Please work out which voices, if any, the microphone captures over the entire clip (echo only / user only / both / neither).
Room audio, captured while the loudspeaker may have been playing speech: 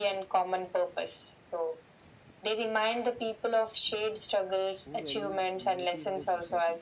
both